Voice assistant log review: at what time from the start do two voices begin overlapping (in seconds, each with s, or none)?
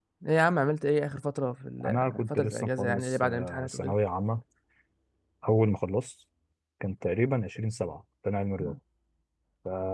1.8 s